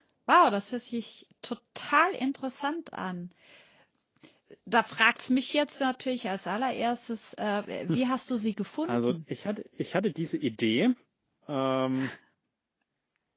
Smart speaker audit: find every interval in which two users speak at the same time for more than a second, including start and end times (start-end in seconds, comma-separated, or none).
none